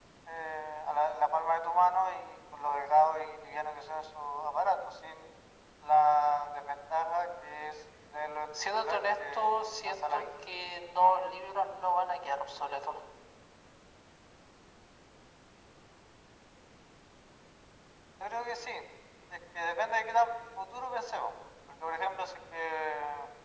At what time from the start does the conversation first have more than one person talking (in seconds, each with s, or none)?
8.6 s